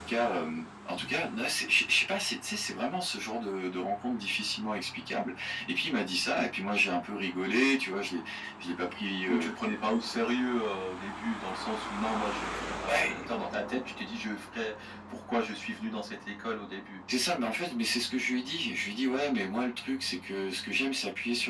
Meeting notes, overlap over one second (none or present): none